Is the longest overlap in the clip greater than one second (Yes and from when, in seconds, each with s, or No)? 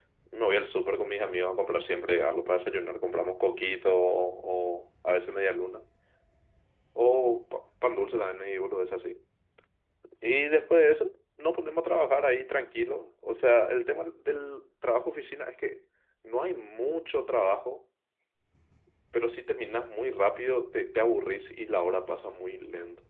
No